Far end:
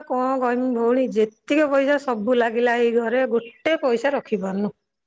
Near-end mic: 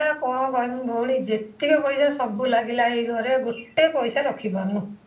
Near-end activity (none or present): none